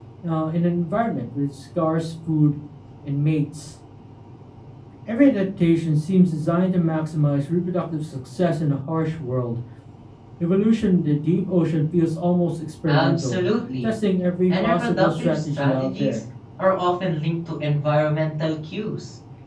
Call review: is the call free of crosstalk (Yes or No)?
No